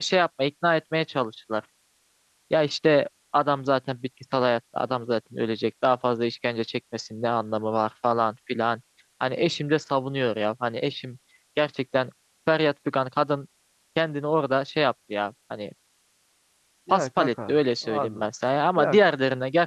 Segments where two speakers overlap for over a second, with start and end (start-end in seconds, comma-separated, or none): 16.9-18.3